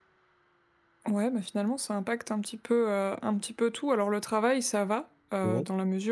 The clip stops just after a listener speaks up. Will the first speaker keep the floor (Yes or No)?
Yes